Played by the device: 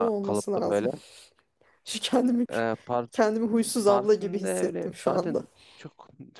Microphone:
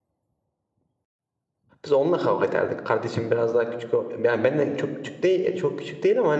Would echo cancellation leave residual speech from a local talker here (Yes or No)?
Yes